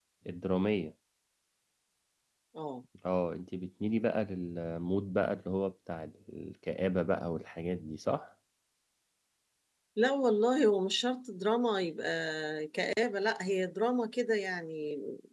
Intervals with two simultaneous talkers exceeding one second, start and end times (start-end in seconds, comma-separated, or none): none